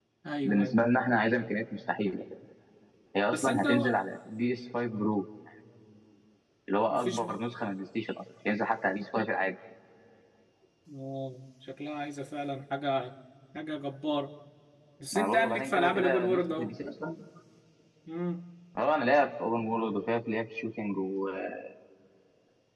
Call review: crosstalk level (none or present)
present